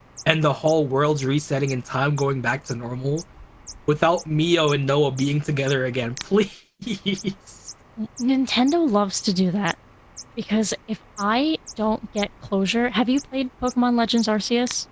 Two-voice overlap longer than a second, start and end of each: none

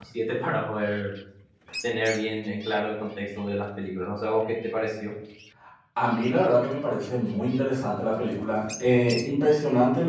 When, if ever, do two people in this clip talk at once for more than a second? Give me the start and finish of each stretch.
none

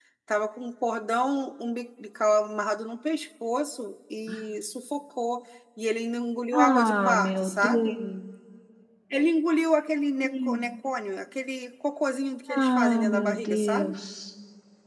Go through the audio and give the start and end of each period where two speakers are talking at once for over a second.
6.5-7.9, 12.5-13.9

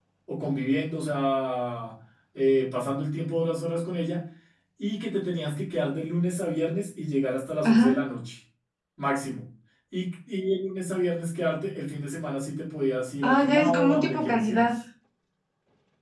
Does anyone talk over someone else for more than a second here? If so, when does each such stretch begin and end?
13.2-14.7

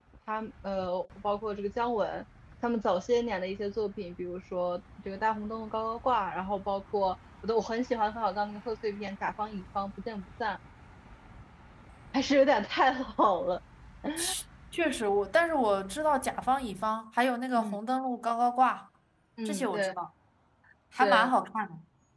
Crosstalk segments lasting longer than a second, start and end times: none

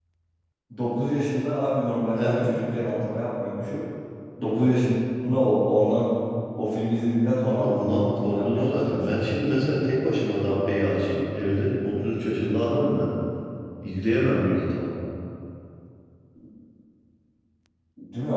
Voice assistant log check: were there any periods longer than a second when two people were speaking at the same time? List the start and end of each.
7.4-9.0

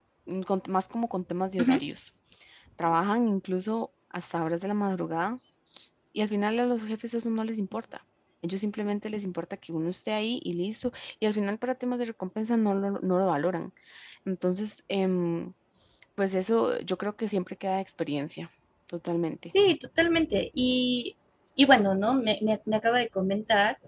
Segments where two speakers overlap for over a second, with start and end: none

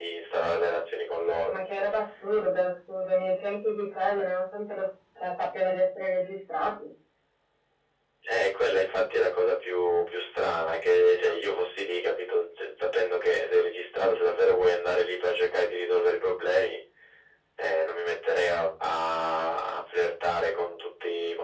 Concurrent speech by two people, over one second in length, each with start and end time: none

